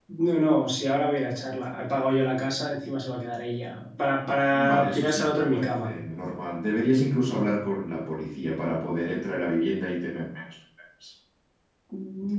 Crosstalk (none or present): present